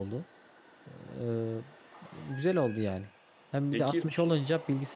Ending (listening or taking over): listening